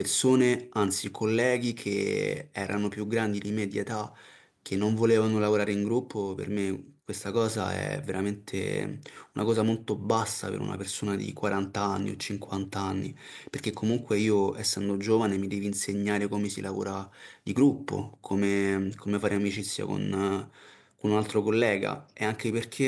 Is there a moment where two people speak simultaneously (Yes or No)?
No